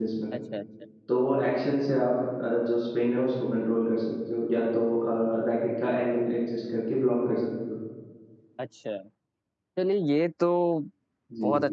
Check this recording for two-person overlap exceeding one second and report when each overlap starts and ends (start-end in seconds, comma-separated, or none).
none